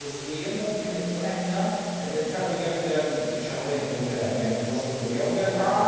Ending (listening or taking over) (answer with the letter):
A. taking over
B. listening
A